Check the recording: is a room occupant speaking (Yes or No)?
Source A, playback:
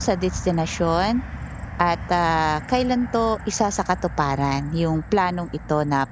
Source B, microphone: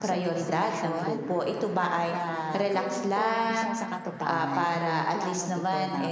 Yes